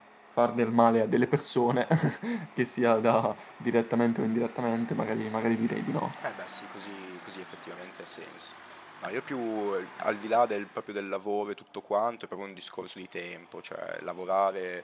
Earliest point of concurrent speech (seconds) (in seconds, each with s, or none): none